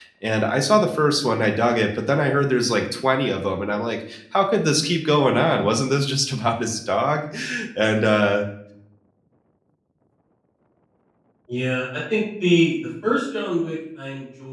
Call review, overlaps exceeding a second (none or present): none